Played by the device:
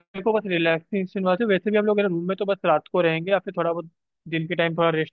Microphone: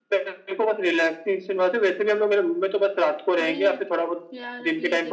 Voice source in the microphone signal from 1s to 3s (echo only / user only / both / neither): echo only